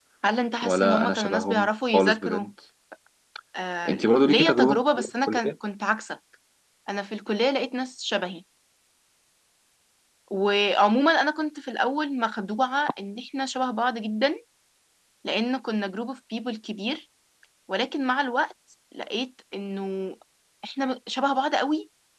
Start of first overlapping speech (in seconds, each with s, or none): 0.6 s